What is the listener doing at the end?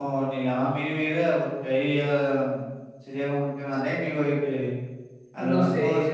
listening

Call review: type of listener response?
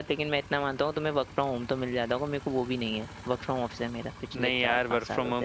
taking over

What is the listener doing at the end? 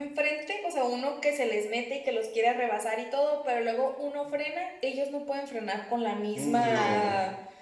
listening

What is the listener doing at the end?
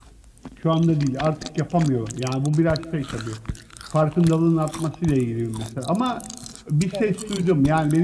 listening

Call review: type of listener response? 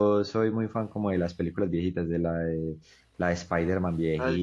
listening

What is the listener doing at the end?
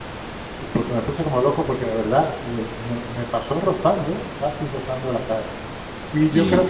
listening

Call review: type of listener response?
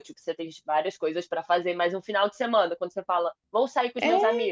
listening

